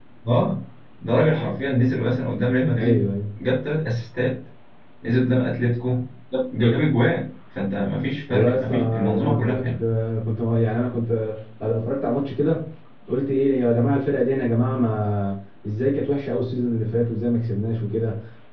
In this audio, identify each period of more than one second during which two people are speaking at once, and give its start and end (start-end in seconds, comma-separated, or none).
8.3-9.8